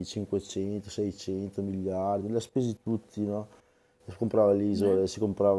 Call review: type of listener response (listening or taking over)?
listening